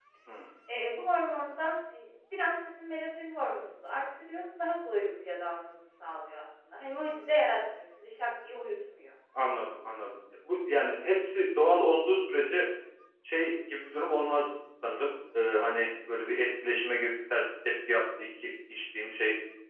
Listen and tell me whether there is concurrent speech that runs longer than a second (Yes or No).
No